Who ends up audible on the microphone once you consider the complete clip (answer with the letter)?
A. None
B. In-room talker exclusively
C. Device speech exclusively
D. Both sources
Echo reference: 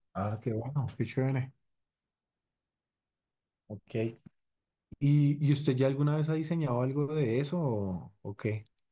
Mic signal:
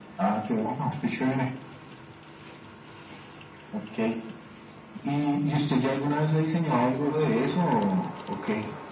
C